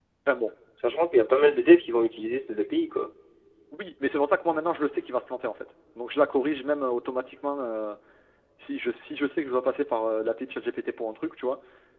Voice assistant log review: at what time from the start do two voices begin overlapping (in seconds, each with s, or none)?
none